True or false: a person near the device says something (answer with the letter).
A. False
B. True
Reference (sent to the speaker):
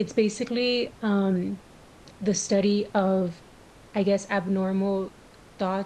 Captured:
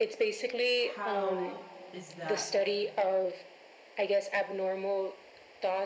B